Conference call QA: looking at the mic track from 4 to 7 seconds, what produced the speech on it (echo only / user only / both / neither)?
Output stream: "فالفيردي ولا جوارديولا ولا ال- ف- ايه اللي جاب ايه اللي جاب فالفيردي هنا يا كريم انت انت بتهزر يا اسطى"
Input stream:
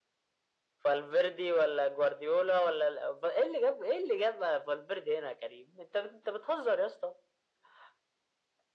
echo only